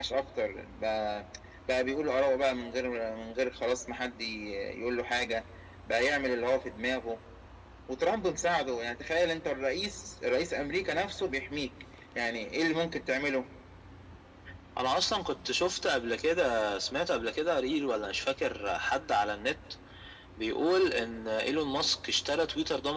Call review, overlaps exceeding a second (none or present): none